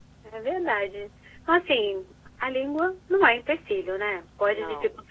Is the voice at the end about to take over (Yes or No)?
No